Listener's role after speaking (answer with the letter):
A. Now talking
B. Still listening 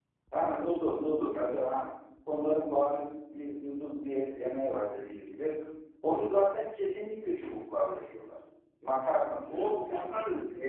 A